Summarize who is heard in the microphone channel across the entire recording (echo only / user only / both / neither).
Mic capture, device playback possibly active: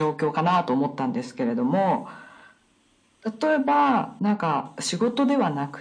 echo only